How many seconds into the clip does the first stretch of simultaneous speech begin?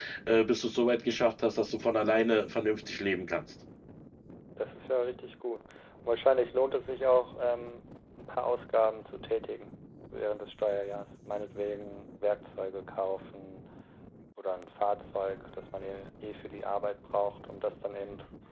none

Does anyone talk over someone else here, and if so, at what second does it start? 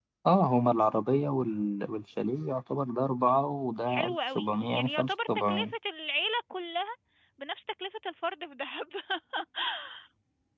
4 s

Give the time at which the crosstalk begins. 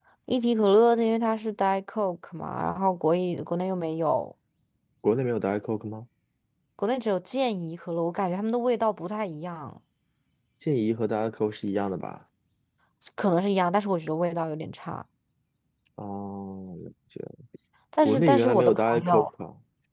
18 s

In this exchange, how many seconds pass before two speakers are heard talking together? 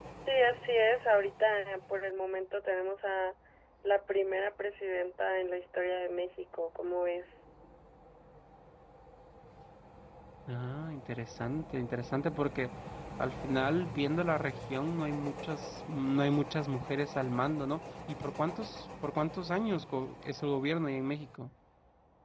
none

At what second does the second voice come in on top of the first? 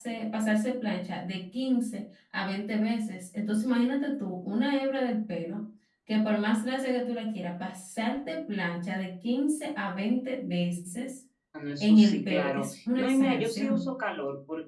12 s

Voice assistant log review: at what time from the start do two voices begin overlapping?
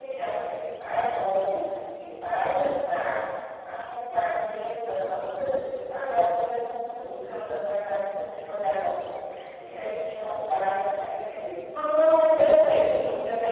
none

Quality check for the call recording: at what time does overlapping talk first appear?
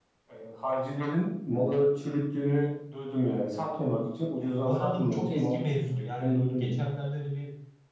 4 s

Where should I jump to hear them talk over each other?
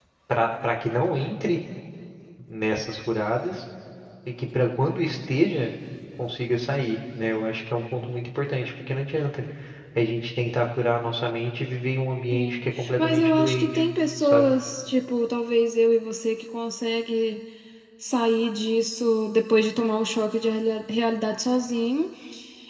12 s

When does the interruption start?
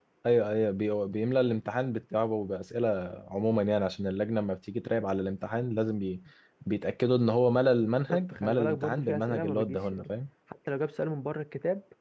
8 s

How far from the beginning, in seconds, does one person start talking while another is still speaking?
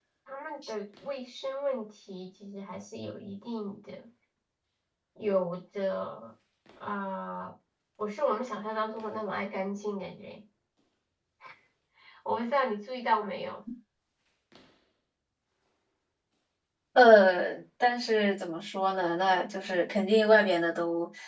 none

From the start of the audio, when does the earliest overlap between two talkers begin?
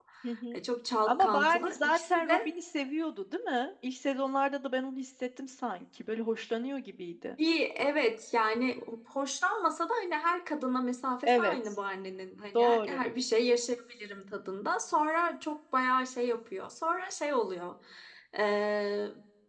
1 s

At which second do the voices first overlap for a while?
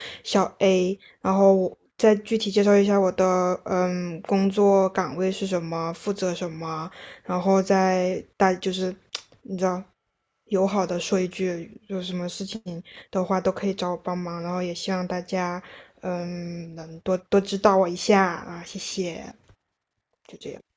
none

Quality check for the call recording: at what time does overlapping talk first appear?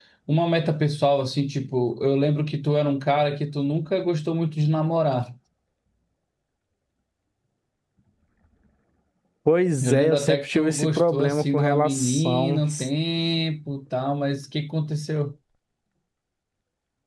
10 s

